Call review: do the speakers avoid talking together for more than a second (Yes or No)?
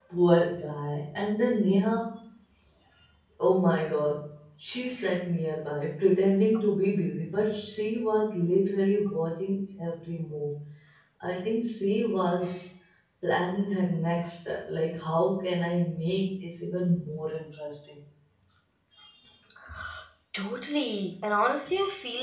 Yes